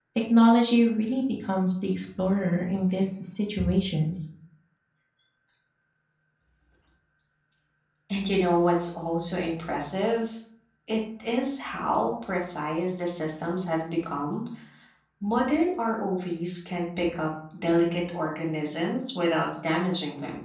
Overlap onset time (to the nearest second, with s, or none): none